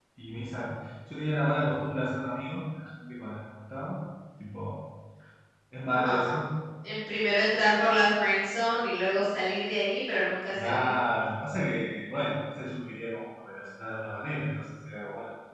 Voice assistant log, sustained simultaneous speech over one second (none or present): none